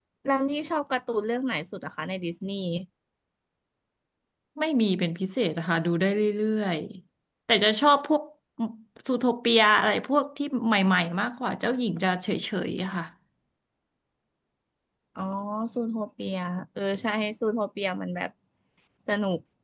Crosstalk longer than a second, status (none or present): none